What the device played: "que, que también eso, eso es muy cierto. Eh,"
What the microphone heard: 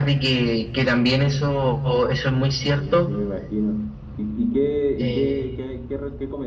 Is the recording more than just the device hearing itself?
Yes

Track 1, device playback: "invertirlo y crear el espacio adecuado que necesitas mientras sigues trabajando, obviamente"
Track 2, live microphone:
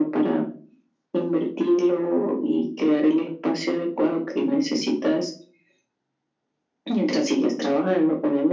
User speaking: No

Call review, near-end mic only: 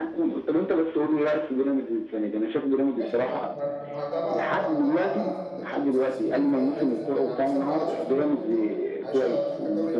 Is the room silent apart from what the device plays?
No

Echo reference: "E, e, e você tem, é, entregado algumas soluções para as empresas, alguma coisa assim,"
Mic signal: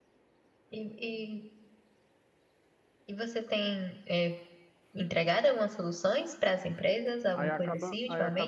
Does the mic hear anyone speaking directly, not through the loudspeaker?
Yes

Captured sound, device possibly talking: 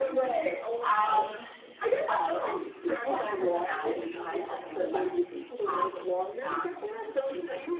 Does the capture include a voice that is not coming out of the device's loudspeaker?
No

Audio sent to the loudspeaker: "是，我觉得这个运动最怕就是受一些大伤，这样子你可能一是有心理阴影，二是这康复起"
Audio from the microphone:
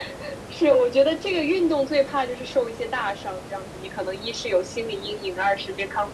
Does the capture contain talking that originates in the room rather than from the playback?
No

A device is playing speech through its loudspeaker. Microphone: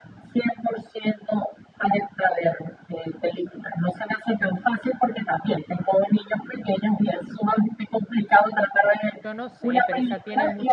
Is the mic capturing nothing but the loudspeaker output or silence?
No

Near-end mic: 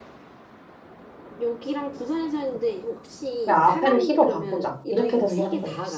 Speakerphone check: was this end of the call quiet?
No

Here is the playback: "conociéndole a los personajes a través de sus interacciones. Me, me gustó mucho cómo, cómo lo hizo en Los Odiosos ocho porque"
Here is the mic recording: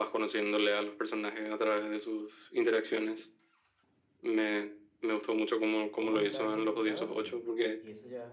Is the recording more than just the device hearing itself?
Yes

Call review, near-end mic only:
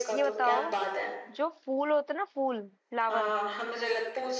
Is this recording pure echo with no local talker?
No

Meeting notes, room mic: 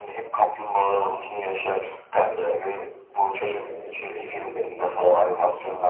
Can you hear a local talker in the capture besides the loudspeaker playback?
Yes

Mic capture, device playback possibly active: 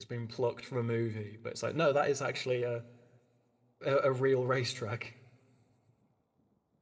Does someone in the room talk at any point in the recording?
Yes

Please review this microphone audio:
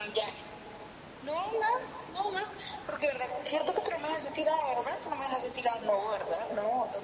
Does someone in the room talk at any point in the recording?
No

